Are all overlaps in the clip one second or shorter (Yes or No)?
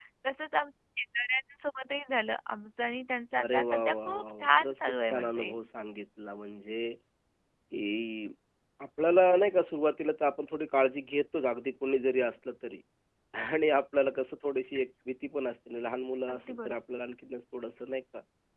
No